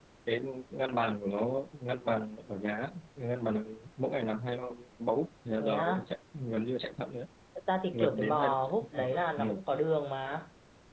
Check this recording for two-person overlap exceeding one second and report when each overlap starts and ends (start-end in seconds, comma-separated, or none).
7.9-9.4